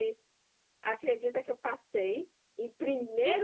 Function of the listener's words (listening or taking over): taking over